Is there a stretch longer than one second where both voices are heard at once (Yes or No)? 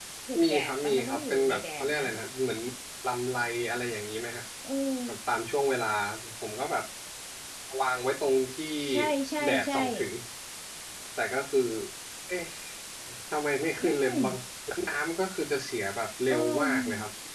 Yes